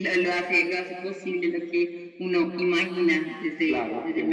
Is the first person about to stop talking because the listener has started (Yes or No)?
Yes